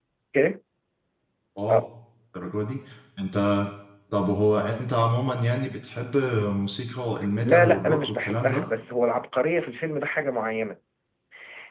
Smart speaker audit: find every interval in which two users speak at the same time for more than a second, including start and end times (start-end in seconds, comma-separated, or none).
7.5-8.7